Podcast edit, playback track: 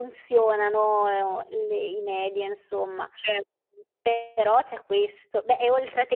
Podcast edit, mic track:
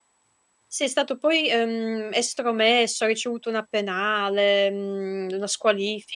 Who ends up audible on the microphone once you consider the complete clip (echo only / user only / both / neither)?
user only